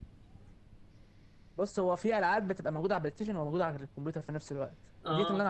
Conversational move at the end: listening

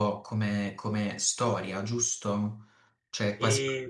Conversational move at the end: listening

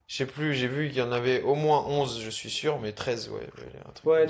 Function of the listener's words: taking over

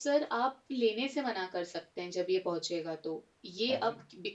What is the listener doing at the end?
listening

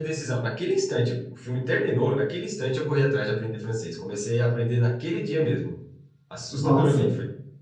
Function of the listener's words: listening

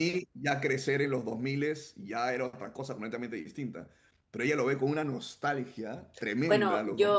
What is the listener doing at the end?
taking over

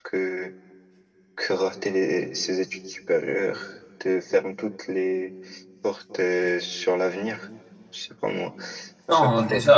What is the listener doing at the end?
taking over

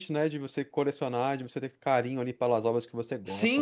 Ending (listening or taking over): taking over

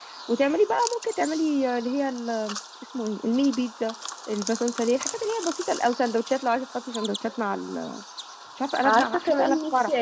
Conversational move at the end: taking over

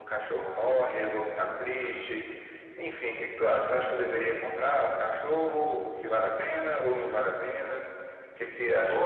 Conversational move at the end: taking over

